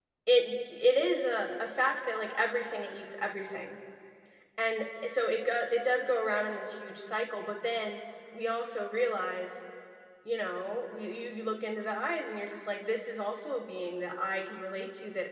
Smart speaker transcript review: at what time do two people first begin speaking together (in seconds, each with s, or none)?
none